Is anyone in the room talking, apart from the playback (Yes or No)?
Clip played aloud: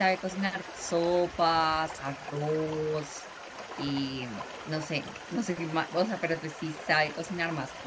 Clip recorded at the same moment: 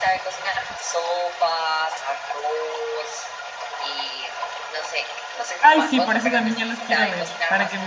Yes